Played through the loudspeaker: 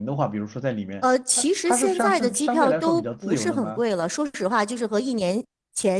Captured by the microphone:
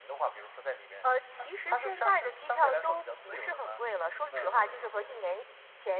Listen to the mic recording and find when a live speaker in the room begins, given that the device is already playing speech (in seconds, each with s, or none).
4.3 s